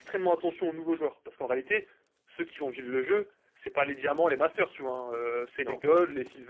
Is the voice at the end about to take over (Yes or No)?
No